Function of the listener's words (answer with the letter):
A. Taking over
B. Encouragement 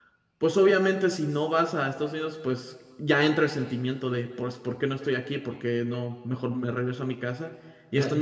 B